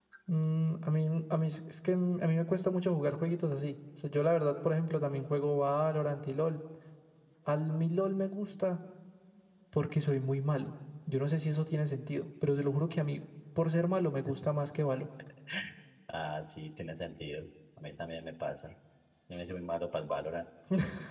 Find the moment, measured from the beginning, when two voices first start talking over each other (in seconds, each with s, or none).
none